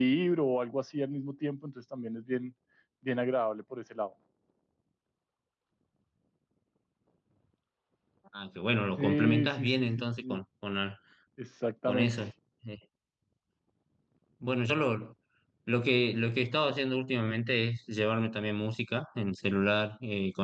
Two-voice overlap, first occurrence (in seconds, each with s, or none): 9.0 s